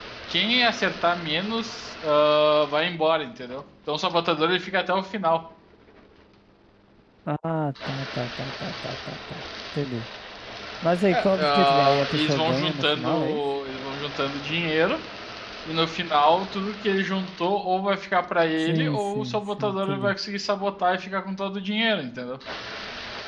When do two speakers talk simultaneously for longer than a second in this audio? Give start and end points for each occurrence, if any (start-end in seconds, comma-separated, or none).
11.1-13.4, 18.6-20.1